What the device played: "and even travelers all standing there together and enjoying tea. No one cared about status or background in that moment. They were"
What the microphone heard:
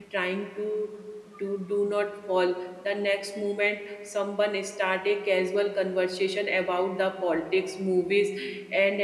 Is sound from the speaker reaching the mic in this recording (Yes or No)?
No